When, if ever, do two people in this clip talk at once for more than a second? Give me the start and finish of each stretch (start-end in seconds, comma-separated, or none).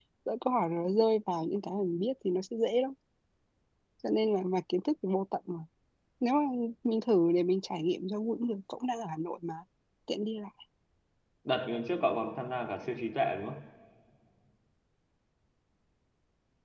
none